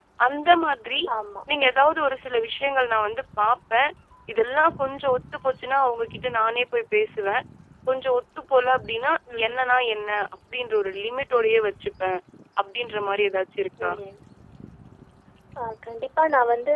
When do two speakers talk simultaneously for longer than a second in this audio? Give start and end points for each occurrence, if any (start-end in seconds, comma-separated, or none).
none